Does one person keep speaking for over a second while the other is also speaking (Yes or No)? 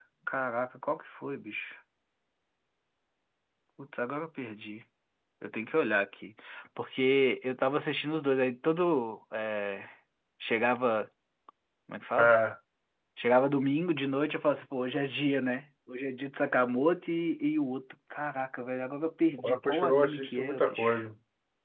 Yes